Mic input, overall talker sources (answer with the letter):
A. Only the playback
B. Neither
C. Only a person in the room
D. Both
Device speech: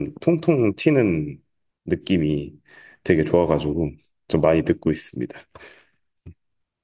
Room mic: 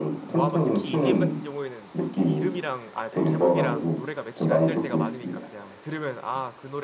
D